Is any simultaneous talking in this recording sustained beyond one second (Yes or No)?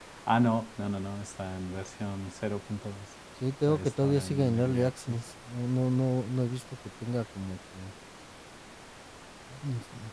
Yes